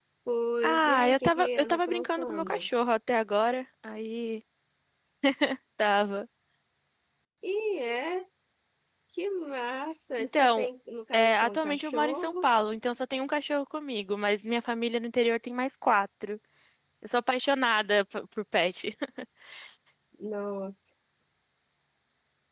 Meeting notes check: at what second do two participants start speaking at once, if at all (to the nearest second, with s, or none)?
1 s